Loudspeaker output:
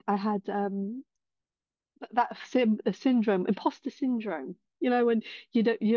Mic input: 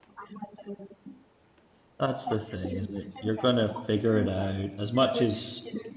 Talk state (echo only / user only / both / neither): both